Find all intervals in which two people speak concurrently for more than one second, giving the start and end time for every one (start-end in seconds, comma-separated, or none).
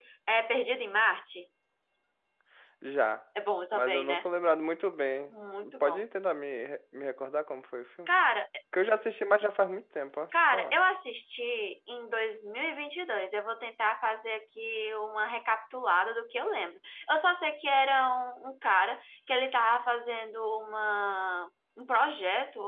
none